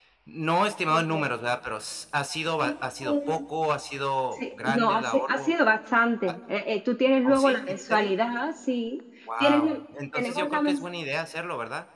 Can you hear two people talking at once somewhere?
Yes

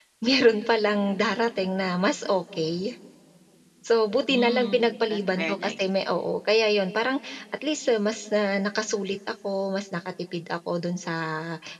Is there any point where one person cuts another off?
Yes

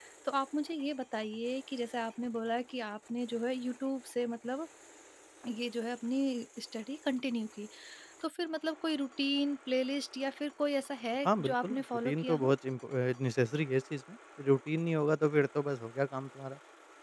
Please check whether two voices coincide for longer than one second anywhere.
Yes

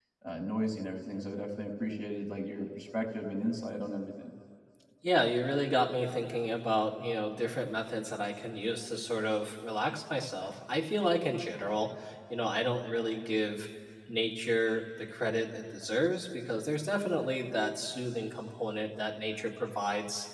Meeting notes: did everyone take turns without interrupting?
Yes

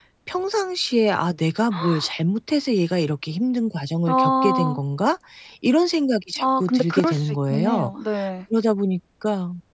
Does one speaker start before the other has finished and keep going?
Yes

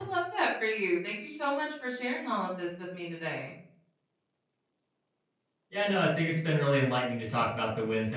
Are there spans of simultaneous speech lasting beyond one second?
No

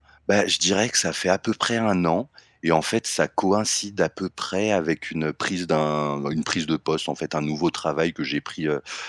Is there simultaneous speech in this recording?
No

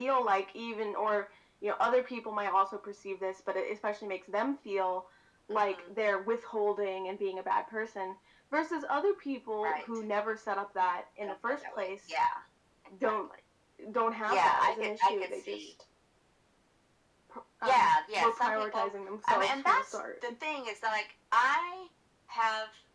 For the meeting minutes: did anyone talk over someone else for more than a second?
Yes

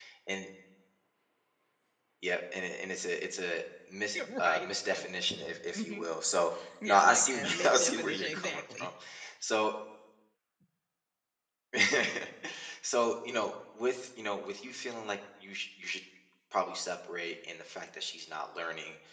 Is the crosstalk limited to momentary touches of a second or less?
No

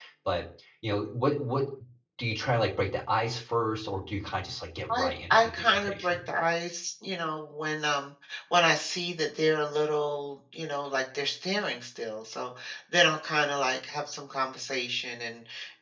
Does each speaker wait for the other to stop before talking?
No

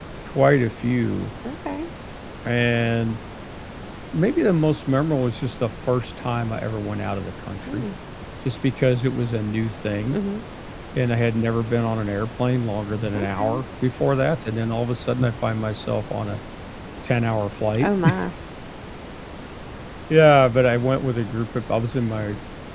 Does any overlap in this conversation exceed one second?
No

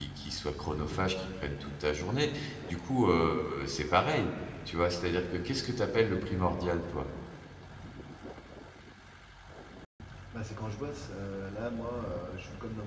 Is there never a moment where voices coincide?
Yes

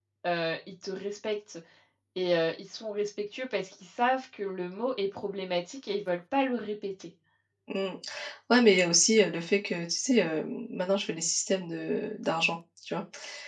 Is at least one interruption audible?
No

